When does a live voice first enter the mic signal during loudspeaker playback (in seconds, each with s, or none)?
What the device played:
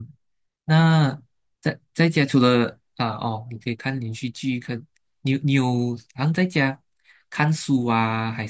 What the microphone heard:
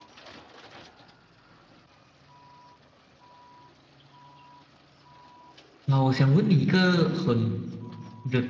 5.9 s